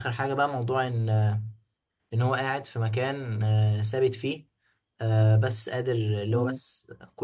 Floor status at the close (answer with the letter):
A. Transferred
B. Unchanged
B